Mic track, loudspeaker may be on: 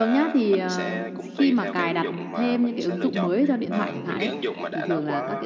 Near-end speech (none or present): present